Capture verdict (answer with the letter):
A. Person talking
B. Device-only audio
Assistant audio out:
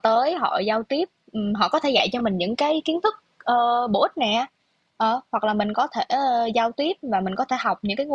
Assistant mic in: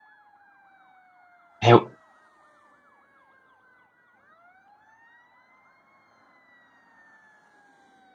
A